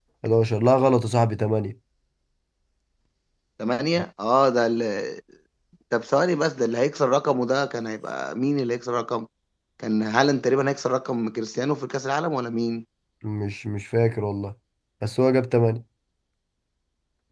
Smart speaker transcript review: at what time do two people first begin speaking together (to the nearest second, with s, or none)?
none